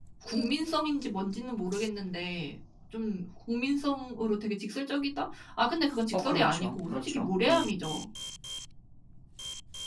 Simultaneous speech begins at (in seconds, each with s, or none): 6.1 s